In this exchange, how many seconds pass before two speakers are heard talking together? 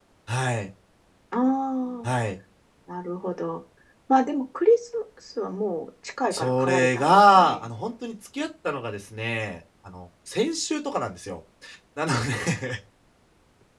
6.3 s

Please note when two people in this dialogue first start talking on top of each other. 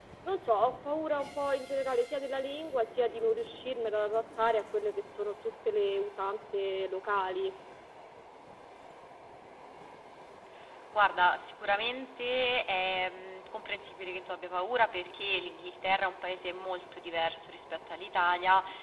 none

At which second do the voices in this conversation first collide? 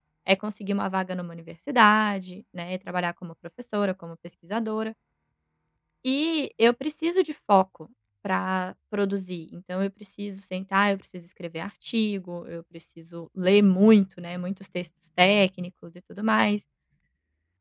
none

